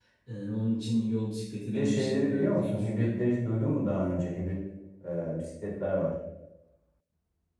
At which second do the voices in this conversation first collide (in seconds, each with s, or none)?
1.7 s